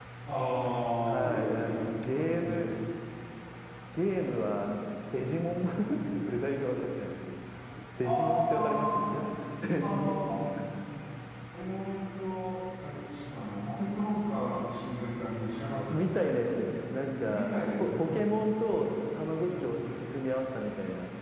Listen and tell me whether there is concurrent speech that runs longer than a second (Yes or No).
Yes